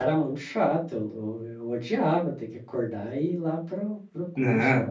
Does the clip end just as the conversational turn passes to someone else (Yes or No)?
Yes